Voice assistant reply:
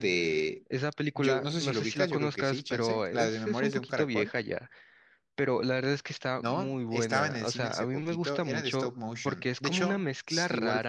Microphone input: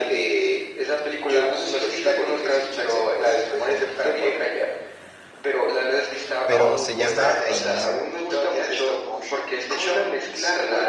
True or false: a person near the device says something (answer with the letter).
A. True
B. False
A